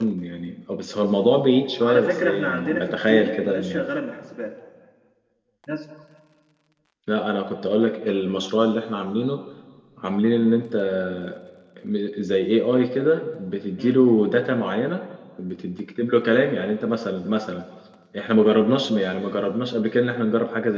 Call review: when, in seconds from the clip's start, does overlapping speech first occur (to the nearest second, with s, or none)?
2 s